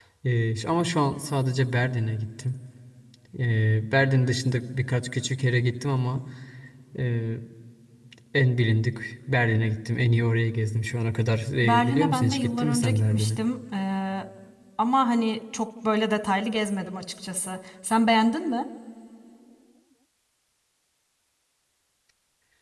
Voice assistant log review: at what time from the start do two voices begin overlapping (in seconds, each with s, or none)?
11.6 s